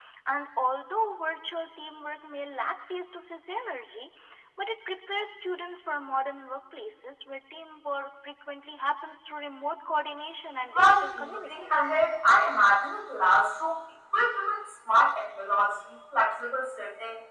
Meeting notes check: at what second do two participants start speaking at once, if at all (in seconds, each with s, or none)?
10.7 s